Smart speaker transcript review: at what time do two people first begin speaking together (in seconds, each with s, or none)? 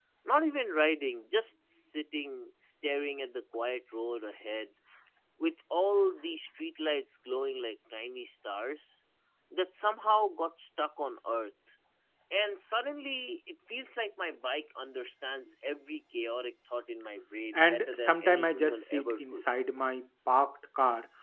17.5 s